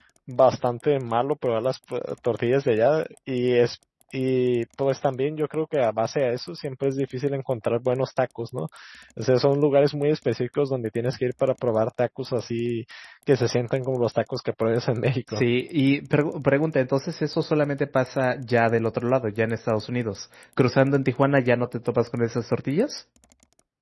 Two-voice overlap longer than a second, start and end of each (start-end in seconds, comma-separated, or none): none